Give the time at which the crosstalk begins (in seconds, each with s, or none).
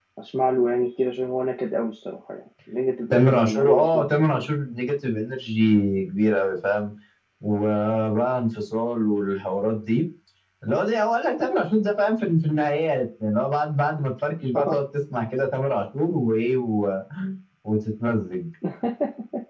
3.1 s